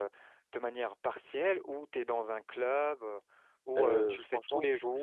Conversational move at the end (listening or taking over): taking over